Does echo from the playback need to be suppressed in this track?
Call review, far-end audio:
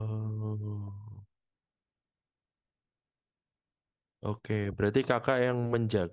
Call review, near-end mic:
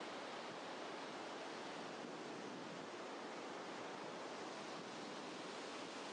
No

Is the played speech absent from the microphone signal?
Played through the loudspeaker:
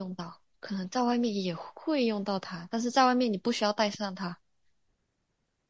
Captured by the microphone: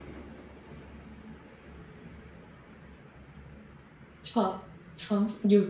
Yes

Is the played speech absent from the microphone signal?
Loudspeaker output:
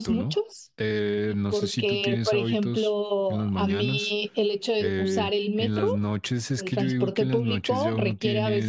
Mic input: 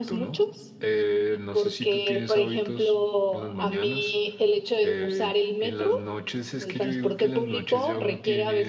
No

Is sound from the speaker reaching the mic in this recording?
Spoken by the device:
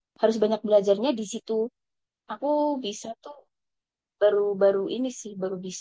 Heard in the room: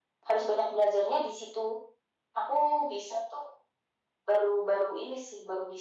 Yes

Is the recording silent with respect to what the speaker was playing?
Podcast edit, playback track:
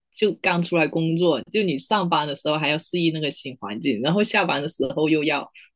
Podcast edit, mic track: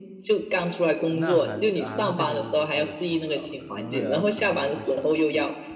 No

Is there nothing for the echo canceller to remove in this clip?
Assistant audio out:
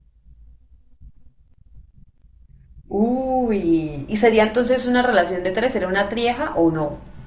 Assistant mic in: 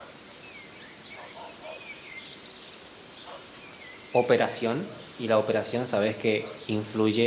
Yes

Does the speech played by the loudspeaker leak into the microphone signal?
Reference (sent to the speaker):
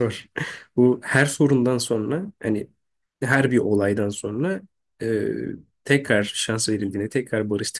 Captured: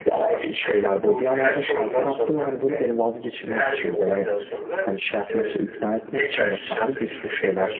Yes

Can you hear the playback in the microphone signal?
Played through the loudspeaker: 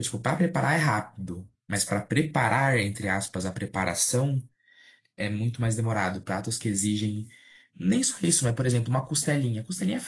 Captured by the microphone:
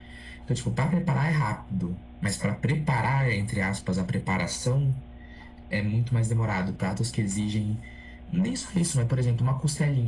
Yes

